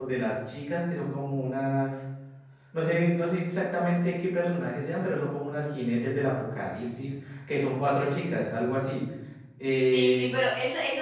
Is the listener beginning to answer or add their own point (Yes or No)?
Yes